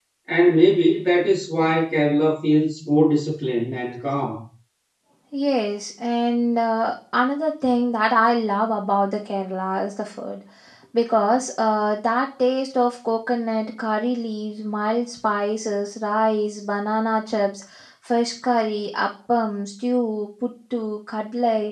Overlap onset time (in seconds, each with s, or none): none